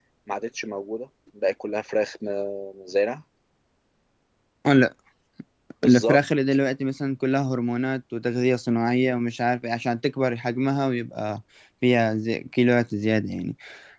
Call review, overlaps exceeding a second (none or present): none